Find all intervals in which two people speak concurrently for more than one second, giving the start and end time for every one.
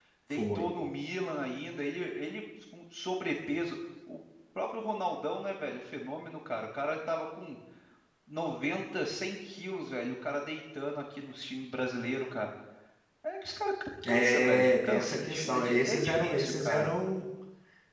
14.1-16.9

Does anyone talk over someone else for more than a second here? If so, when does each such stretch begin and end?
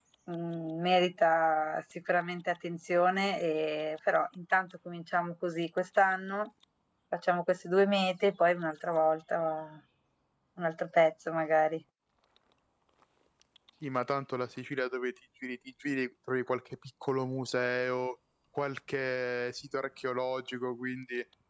none

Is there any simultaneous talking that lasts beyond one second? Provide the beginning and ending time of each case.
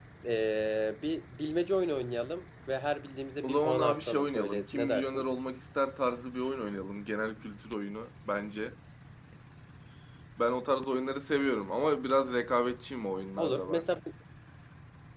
3.4-5.2

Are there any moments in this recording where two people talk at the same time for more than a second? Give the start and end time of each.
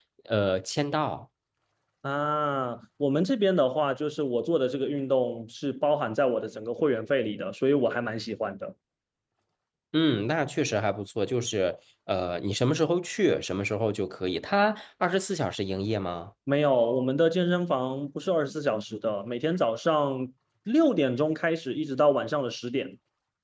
none

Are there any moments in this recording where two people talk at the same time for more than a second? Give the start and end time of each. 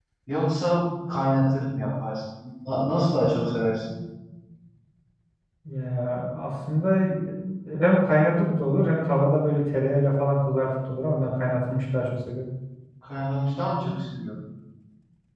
none

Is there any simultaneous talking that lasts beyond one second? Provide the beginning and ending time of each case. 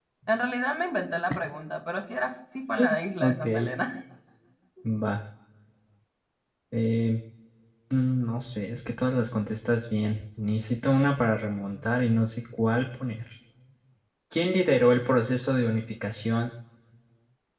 none

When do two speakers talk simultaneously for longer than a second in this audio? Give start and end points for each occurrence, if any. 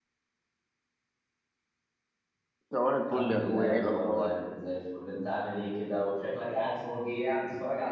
3.1-4.3

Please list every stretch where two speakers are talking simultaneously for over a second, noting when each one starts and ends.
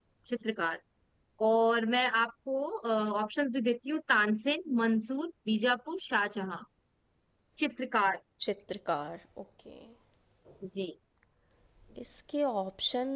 none

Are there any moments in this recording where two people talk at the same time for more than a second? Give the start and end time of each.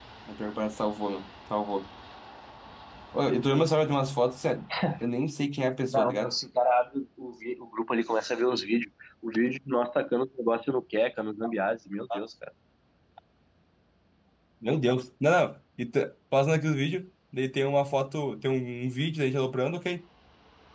none

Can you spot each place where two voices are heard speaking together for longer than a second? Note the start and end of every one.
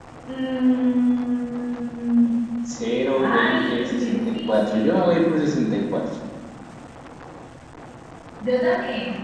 3.2-5.0

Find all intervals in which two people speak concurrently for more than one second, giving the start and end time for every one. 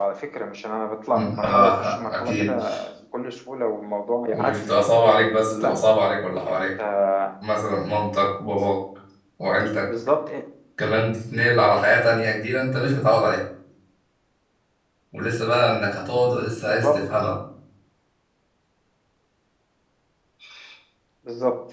1.1-2.5

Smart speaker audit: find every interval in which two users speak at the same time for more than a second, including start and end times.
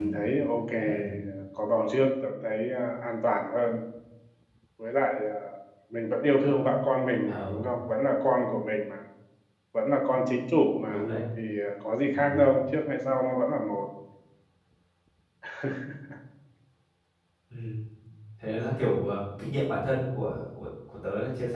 none

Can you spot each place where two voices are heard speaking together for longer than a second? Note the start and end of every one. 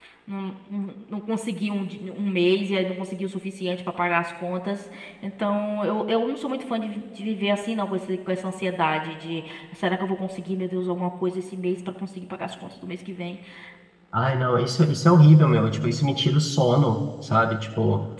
none

